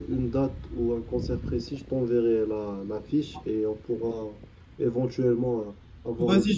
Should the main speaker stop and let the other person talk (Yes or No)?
Yes